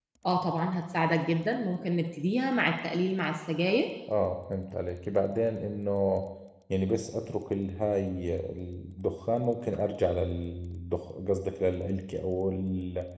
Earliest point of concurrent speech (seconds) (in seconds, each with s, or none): none